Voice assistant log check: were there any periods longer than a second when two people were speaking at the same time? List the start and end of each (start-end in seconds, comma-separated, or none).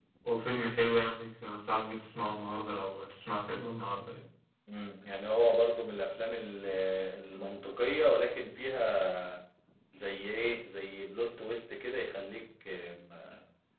none